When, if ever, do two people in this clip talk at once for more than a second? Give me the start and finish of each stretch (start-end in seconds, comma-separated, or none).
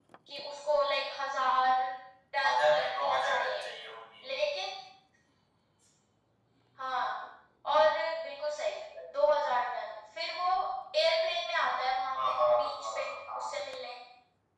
2.4-3.6, 12.2-13.4